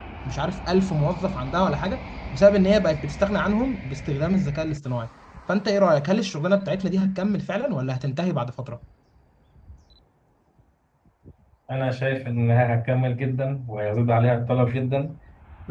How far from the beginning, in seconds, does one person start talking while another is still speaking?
none

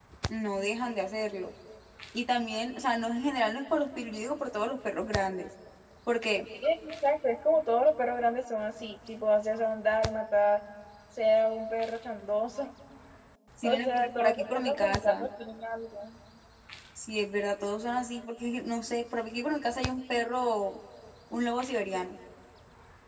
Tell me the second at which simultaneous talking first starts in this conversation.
14 s

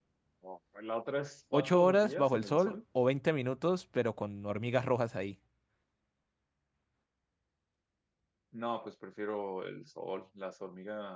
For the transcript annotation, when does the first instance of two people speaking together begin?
2 s

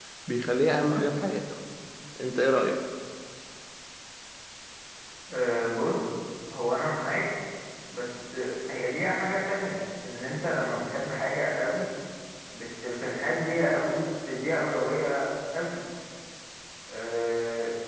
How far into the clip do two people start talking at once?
none

